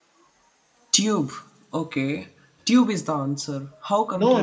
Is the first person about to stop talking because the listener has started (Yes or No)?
Yes